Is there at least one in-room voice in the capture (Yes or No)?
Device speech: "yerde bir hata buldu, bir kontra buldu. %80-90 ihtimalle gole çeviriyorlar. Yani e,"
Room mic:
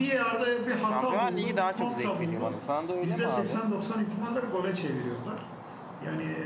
Yes